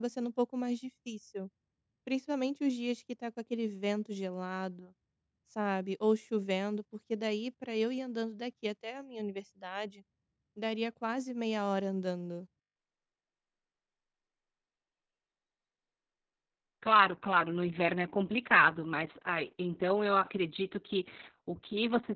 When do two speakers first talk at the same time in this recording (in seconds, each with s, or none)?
none